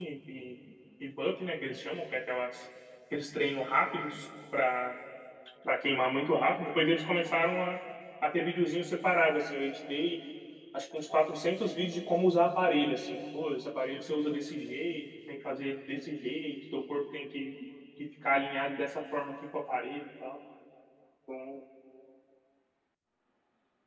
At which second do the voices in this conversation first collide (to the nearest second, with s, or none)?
none